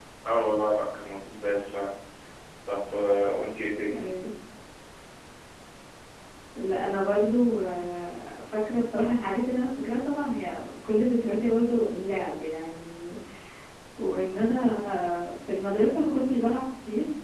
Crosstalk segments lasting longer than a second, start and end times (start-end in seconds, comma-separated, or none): none